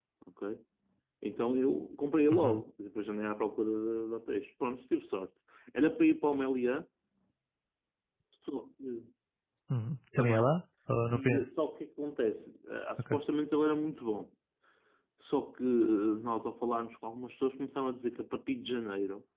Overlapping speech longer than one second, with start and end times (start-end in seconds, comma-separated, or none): none